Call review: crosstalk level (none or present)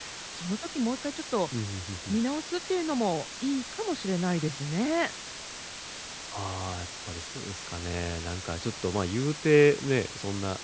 none